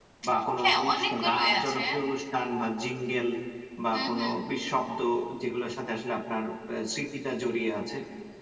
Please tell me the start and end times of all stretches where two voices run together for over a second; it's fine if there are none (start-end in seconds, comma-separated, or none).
0.6-1.8